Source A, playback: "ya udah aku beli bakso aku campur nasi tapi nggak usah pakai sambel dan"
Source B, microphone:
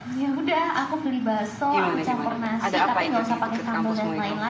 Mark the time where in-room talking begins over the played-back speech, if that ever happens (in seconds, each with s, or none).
1.7 s